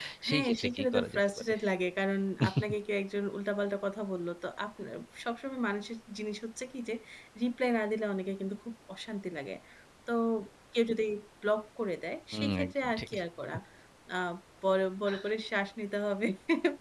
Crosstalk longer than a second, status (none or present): present